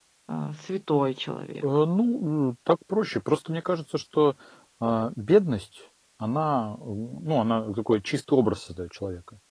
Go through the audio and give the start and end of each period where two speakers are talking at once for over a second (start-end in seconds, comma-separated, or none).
none